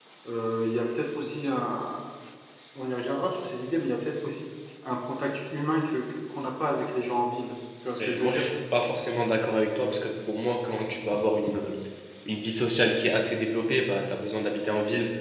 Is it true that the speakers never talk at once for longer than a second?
Yes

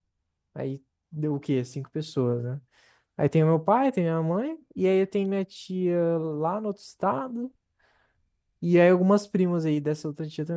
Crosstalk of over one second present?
No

